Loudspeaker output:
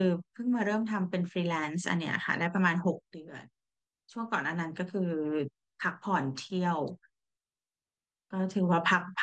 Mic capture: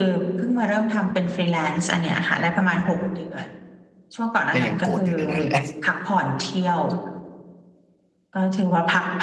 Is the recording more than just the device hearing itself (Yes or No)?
Yes